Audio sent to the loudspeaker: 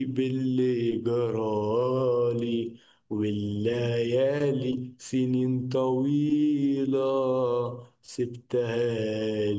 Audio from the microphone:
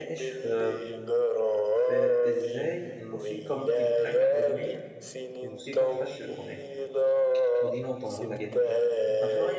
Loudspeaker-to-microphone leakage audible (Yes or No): Yes